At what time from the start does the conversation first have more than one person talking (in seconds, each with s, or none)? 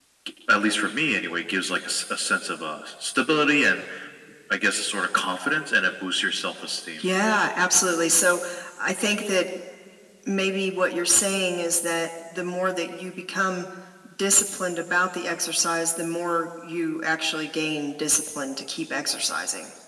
none